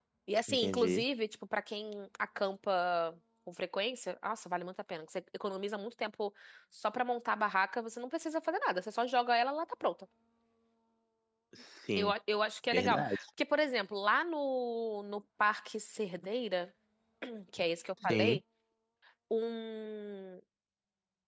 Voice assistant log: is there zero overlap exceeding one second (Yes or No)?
Yes